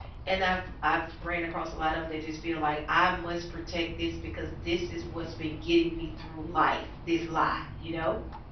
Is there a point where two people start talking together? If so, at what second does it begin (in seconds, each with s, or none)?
none